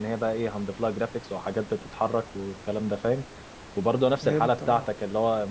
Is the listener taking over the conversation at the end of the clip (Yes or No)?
No